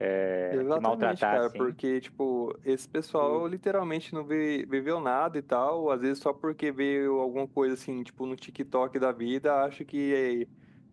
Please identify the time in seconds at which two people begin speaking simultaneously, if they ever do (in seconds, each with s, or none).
0.5 s